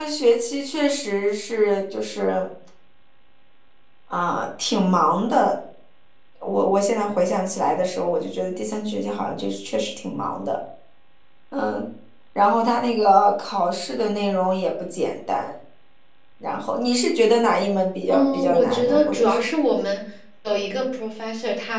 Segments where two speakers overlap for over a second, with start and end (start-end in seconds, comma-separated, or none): 18.1-19.4